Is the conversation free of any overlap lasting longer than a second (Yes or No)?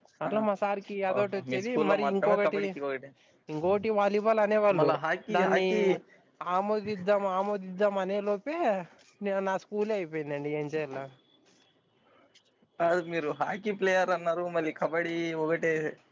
No